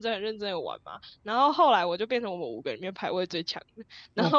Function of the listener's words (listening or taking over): listening